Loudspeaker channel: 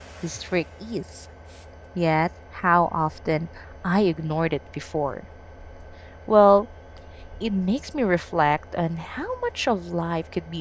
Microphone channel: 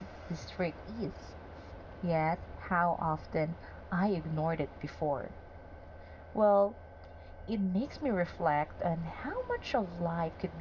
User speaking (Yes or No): No